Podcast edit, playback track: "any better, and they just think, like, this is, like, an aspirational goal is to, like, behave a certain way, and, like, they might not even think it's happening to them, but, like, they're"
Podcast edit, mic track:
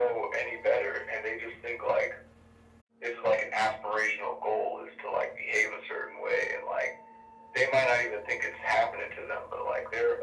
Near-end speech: none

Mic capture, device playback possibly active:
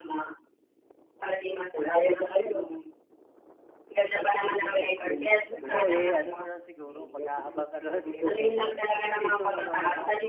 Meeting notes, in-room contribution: present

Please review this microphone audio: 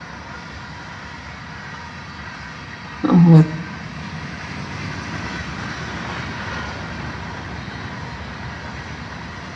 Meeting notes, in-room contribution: present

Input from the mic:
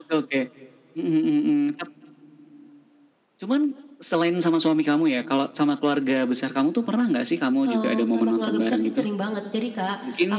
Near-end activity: present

